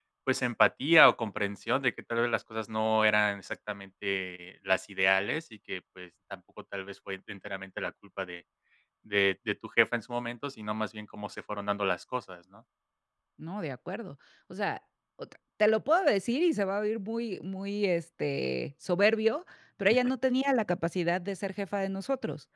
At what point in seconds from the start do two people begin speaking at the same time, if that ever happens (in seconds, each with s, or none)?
none